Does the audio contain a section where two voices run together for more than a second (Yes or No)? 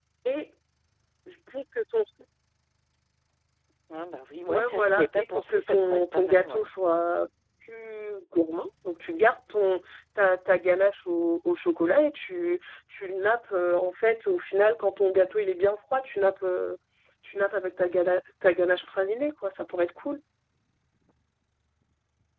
Yes